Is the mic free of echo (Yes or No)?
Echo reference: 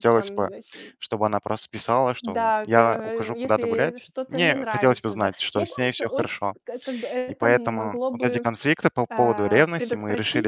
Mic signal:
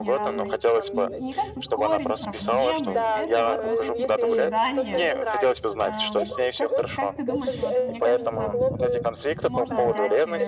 No